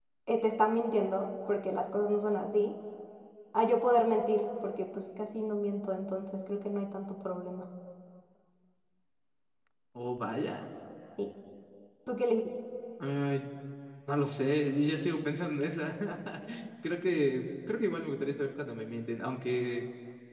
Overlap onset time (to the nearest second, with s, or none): none